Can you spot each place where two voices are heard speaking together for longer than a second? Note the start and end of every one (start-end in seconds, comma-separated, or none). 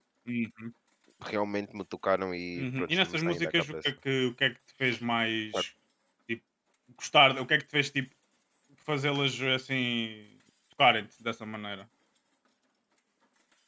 2.5-3.9